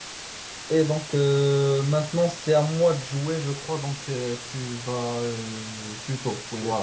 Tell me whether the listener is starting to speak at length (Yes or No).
No